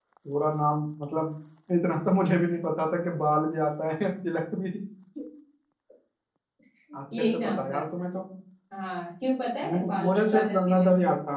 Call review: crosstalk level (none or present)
present